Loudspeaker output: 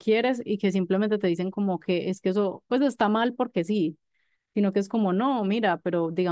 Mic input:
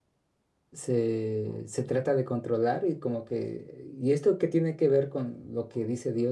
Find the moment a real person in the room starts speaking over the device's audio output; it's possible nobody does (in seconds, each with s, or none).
0.7 s